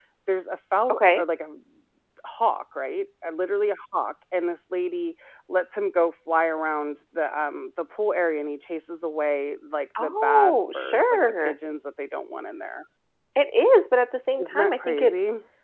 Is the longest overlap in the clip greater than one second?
Yes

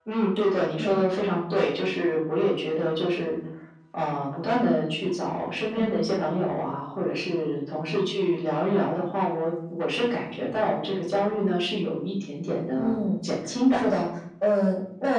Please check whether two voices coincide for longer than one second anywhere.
No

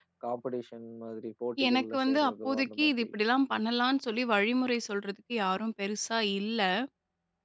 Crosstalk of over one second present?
Yes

